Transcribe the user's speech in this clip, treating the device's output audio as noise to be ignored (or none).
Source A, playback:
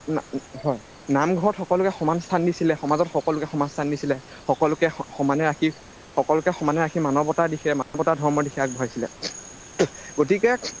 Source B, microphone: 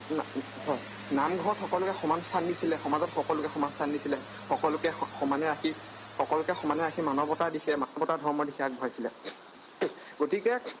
none